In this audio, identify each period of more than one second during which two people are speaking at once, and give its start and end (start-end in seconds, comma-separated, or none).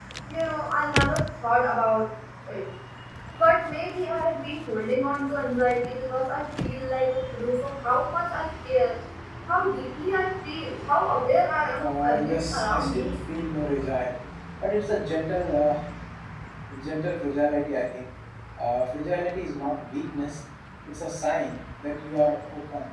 11.8-13.1